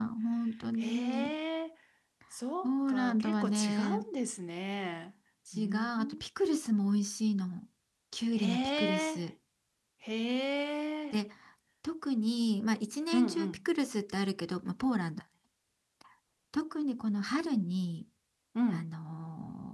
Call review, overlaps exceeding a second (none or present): present